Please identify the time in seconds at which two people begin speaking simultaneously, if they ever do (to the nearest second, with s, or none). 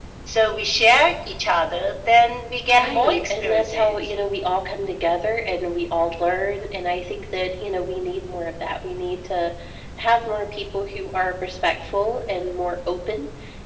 3 s